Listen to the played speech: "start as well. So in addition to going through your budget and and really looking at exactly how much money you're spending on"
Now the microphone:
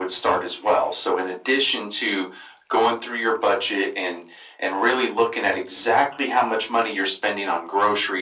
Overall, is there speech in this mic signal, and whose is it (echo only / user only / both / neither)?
echo only